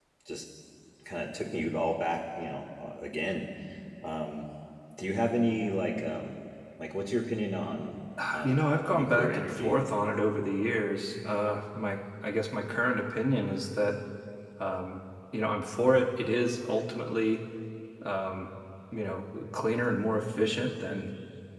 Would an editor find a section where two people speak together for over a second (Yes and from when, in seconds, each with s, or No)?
Yes, from 8.2 s